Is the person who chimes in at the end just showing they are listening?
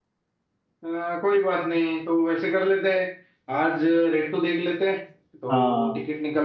Yes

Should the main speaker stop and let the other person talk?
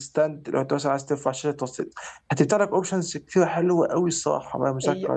Yes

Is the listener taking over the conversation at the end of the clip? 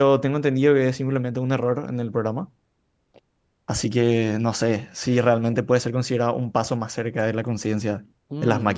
Yes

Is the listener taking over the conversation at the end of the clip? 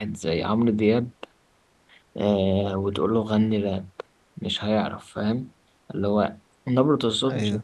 No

